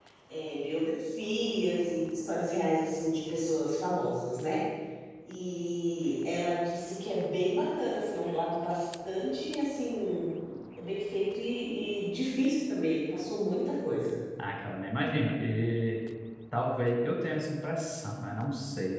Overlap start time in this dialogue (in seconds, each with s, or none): none